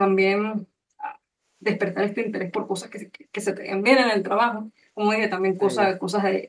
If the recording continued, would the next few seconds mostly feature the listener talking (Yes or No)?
No